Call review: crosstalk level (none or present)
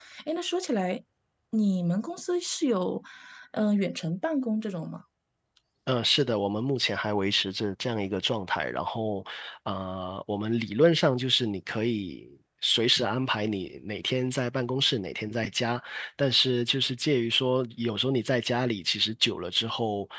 none